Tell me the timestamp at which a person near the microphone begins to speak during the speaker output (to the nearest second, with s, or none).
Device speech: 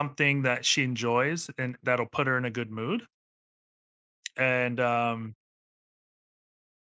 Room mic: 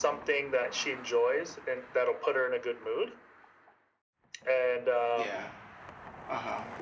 5 s